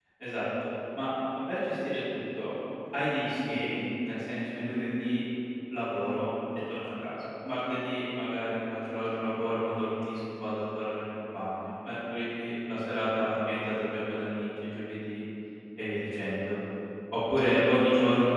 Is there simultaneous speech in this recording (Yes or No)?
No